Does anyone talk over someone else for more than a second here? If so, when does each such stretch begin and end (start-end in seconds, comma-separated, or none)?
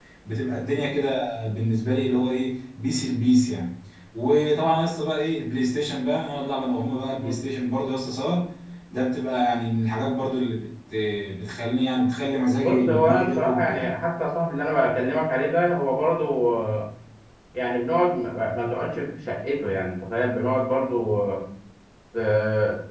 12.6-14.0